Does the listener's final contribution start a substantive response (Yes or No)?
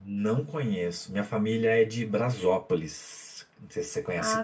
Yes